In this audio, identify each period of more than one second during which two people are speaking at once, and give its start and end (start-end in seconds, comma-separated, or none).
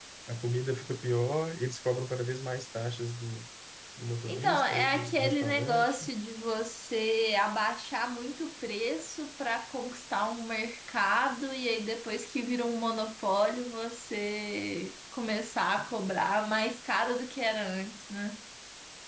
4.2-6.1